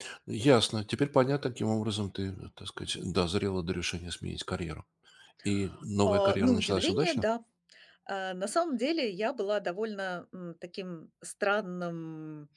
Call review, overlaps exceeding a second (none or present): present